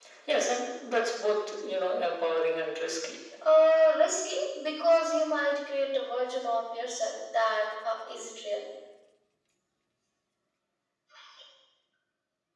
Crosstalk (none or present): none